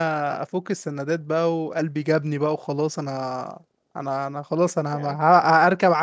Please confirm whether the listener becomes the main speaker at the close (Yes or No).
No